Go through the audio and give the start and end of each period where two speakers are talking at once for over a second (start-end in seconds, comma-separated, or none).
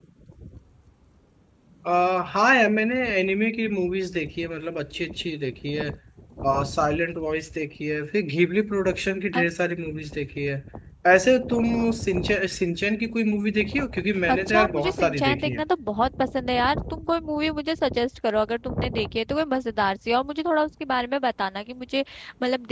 14.3-15.6